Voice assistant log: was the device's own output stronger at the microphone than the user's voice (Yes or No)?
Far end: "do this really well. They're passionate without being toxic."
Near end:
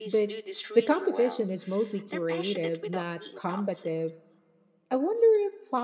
No